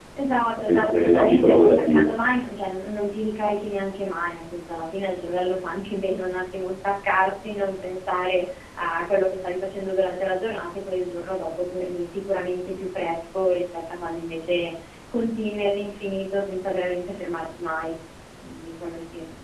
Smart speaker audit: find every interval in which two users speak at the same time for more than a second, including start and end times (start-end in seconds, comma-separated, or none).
0.6-2.1